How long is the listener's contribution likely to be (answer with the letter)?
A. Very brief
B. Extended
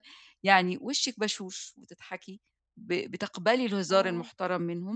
A